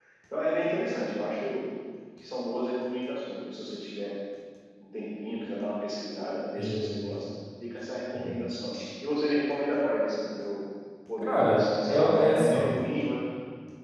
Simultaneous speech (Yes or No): Yes